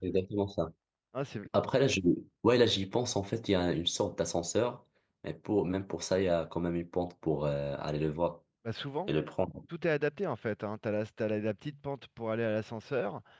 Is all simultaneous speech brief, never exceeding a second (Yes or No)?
Yes